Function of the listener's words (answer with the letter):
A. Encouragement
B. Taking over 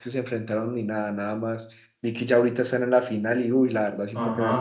B